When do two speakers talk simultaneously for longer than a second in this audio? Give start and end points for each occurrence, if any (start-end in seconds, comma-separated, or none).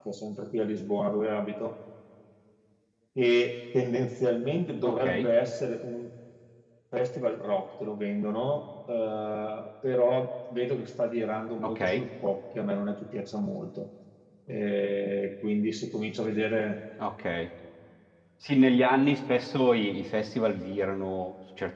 none